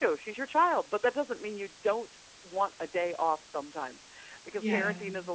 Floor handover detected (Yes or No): No